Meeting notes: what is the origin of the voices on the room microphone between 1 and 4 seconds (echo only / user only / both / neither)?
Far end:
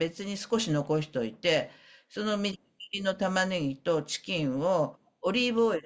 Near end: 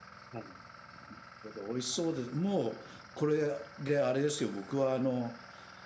user only